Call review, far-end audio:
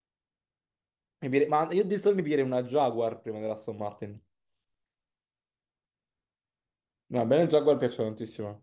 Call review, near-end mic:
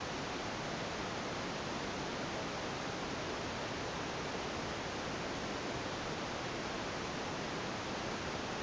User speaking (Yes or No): No